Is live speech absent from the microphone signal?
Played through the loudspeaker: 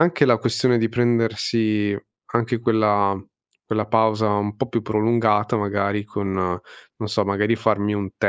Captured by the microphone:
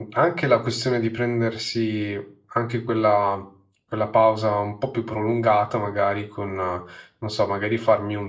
Yes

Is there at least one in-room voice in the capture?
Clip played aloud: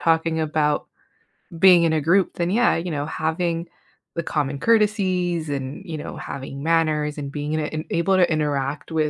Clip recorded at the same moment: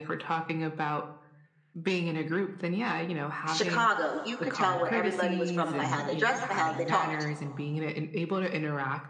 Yes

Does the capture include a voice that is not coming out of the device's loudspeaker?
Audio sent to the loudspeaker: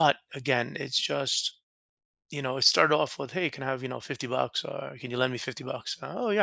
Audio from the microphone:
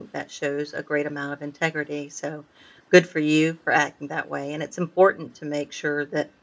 Yes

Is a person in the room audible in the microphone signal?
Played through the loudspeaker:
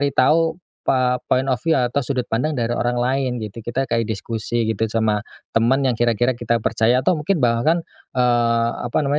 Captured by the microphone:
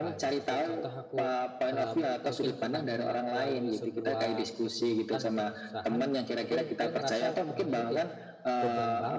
Yes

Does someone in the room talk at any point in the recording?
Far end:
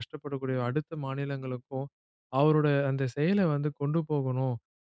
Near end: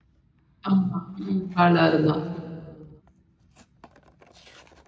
Yes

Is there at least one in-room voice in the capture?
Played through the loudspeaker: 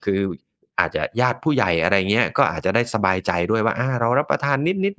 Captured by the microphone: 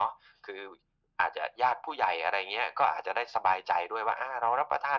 No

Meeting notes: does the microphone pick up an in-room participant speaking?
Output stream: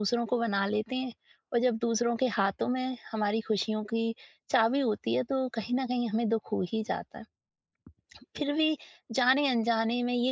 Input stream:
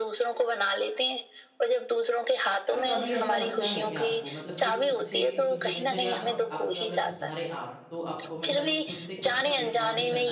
Yes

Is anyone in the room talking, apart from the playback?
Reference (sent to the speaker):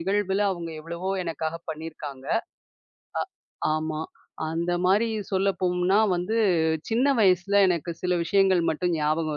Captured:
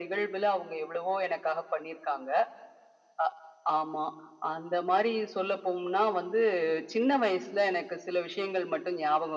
No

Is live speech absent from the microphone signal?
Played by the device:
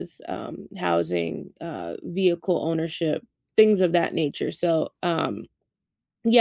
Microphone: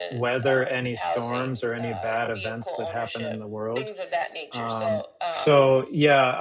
No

